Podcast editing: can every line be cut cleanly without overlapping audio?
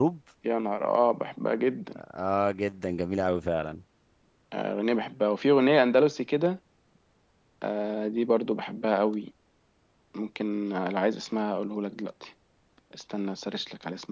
Yes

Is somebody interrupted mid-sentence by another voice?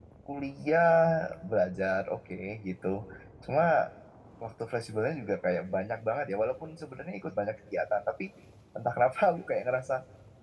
No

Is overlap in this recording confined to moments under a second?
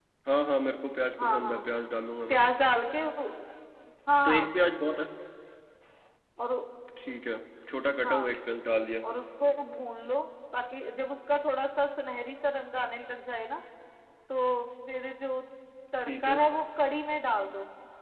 Yes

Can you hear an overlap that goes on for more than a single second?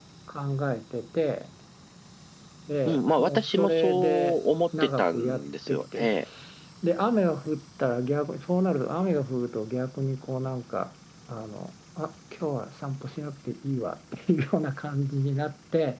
Yes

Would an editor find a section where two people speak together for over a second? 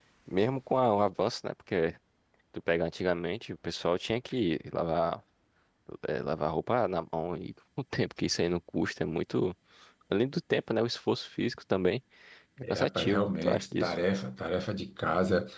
Yes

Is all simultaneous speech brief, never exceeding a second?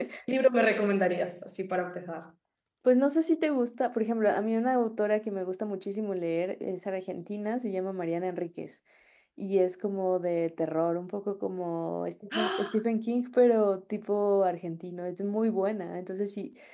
Yes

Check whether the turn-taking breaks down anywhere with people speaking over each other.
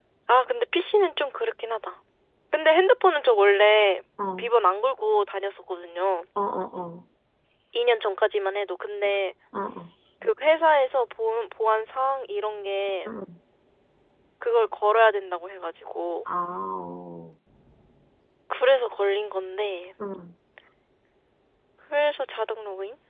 No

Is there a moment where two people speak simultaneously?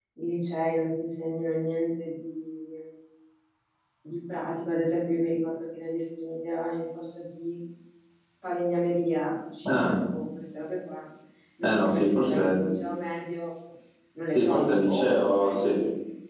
Yes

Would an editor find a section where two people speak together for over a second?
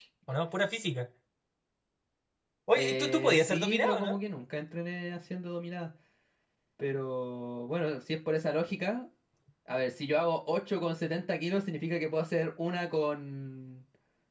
Yes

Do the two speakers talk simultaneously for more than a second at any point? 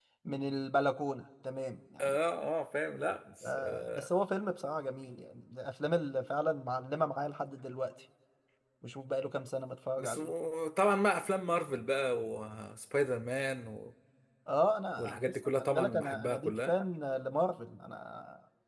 Yes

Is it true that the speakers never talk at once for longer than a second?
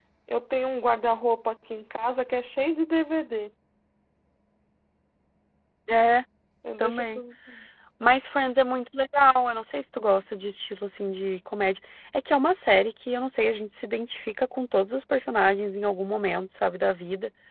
Yes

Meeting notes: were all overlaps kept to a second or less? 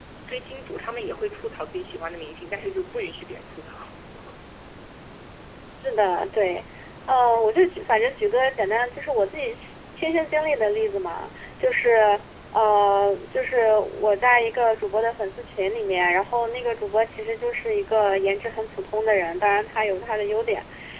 Yes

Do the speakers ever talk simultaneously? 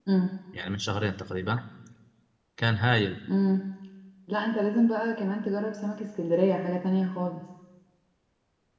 No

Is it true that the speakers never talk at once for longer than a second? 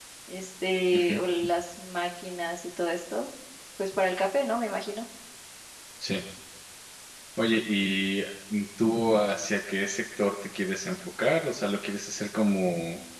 Yes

